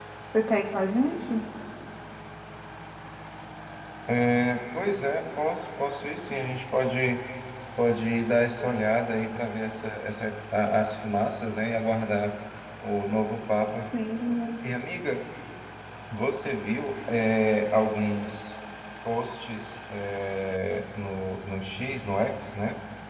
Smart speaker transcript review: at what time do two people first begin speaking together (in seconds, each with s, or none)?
none